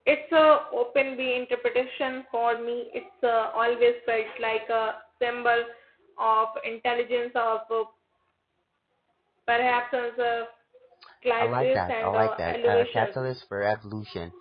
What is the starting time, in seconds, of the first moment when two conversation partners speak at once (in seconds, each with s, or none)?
11.4 s